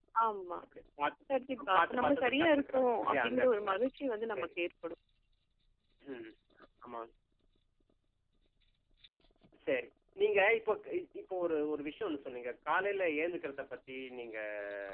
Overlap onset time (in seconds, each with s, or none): 1.6 s